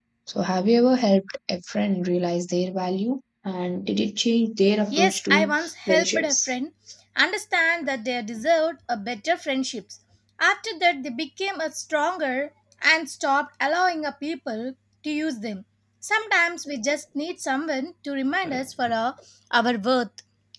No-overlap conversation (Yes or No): No